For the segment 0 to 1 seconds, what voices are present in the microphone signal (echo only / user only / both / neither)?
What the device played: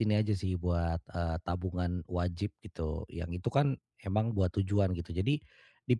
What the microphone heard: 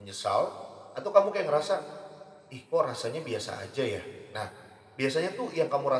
user only